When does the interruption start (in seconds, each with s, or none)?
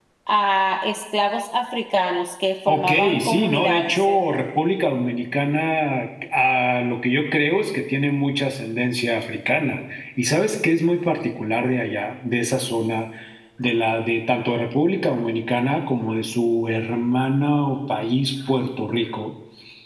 2.7 s